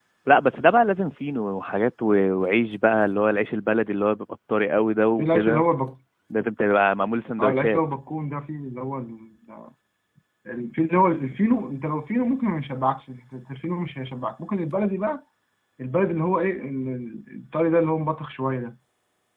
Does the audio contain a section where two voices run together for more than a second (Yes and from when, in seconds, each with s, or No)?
No